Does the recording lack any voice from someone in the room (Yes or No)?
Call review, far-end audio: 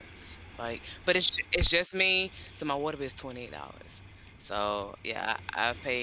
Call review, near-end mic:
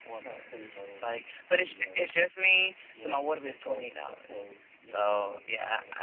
No